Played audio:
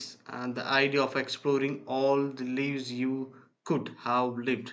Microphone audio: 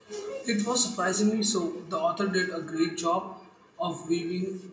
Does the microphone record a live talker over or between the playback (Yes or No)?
Yes